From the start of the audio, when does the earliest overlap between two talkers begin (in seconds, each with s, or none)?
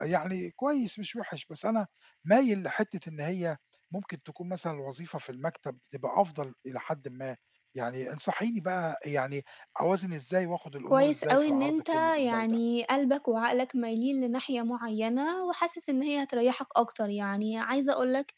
10.9 s